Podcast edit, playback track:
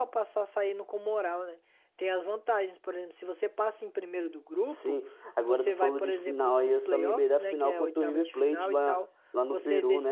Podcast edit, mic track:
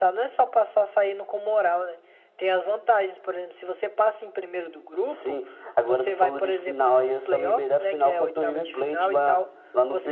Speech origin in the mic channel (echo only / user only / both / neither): echo only